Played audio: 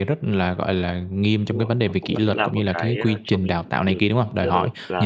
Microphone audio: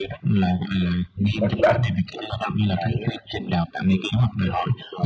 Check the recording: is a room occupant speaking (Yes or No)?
Yes